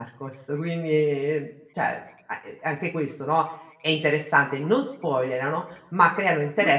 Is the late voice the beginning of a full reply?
No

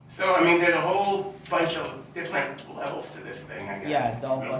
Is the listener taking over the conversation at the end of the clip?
Yes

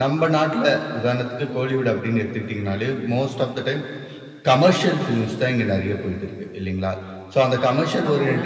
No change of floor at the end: Yes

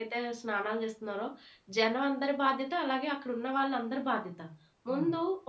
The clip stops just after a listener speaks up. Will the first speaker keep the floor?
Yes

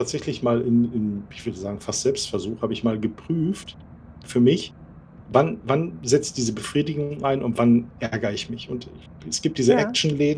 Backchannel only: Yes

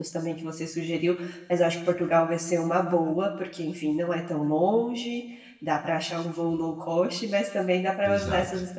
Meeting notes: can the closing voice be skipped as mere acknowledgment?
Yes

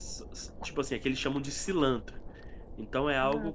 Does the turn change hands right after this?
No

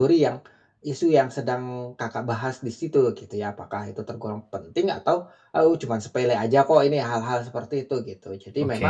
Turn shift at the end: No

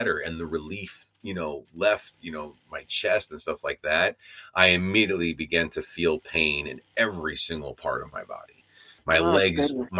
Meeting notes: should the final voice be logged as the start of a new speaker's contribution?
No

